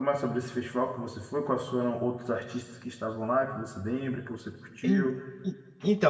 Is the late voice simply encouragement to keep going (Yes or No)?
No